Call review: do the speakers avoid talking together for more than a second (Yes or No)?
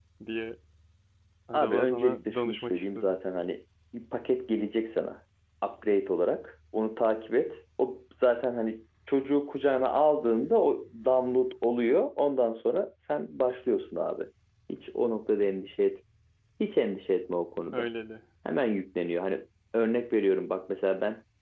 No